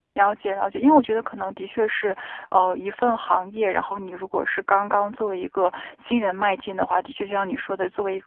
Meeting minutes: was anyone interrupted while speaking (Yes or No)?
No